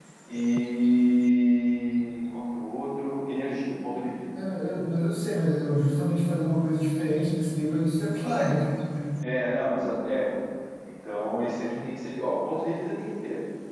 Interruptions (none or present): none